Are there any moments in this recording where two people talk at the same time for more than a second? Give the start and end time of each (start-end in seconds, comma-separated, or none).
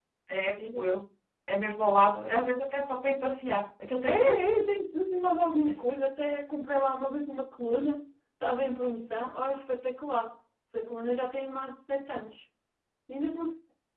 none